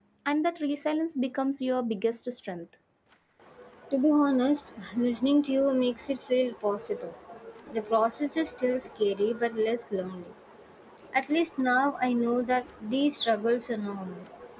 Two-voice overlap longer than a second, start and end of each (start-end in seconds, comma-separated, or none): none